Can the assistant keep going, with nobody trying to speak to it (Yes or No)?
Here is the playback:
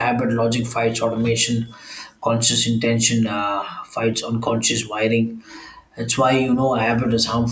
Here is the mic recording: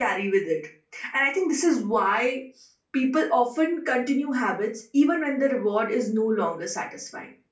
No